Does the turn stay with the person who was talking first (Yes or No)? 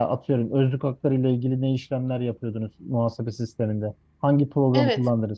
Yes